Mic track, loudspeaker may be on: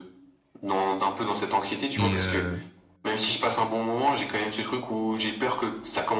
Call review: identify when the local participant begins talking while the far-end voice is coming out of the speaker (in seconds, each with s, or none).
2.0 s